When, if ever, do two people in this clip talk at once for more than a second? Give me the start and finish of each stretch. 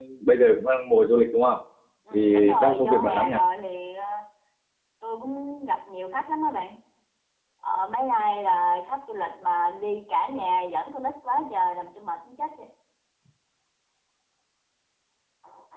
2.1-3.4

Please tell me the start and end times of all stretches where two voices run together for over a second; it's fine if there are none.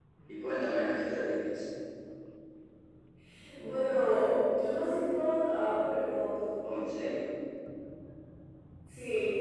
none

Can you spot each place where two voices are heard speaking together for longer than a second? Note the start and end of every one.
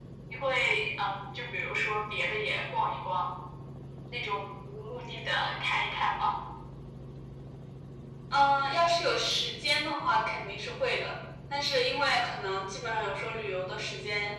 none

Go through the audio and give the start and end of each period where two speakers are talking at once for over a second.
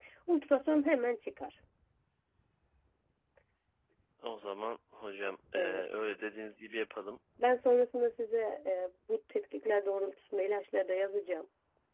none

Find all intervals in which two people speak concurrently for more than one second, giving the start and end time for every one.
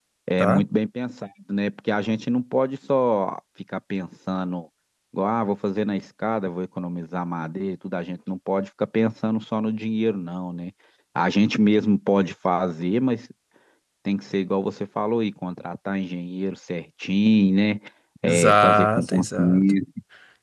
18.2-19.6

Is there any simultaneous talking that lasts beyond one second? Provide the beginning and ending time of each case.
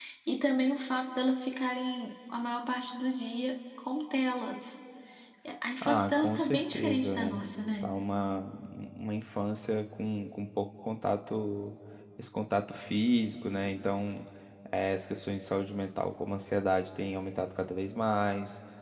5.8-7.4

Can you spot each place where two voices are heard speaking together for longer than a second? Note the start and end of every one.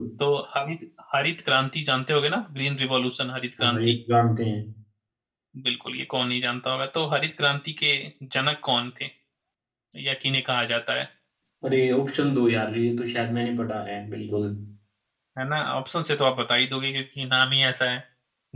none

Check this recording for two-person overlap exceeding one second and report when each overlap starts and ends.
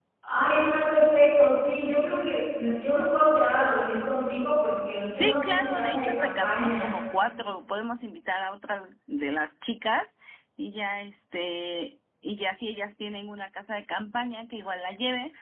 5.1-6.9

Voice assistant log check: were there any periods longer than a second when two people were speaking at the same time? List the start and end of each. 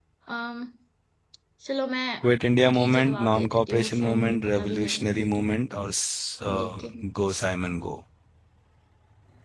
2.6-5.5

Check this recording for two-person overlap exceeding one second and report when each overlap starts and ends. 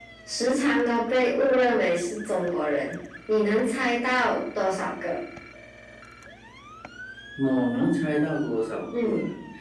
none

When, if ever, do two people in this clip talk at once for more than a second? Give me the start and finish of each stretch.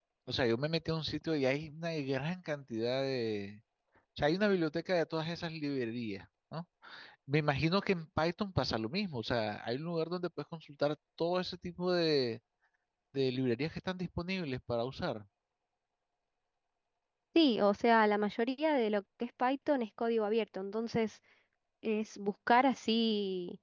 none

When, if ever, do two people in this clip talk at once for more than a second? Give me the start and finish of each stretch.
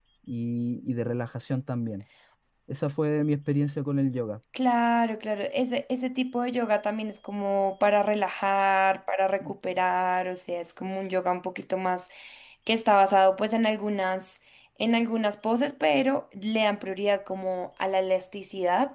none

